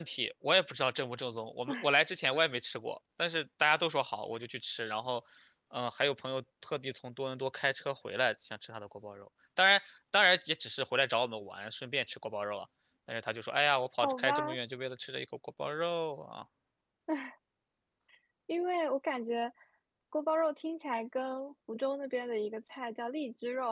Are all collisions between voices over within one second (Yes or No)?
Yes